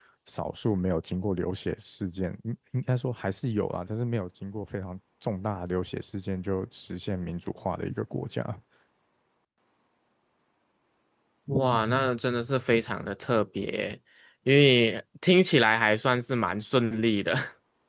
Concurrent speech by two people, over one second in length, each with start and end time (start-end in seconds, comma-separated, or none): none